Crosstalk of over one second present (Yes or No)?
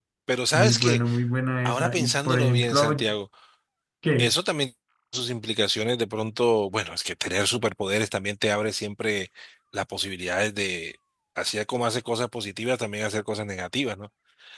Yes